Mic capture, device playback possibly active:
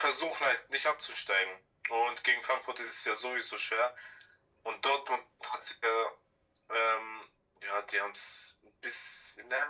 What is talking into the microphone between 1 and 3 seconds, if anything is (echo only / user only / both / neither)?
echo only